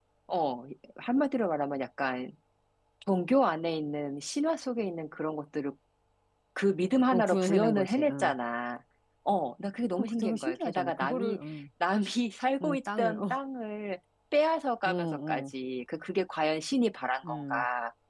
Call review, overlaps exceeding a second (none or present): present